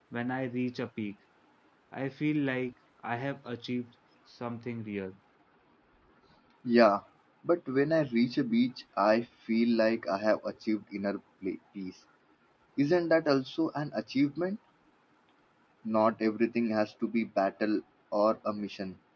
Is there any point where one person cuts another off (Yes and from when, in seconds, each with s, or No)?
No